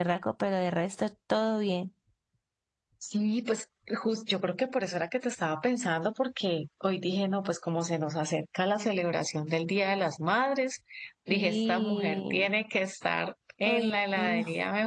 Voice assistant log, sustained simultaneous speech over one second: present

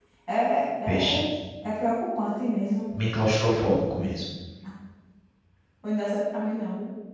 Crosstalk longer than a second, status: none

